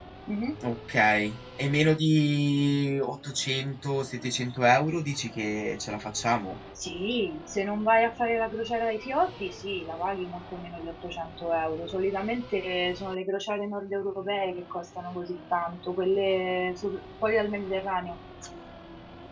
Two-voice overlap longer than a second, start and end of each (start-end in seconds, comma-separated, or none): none